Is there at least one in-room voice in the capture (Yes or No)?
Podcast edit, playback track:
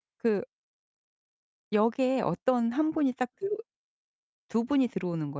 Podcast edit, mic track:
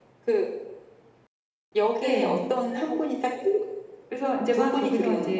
Yes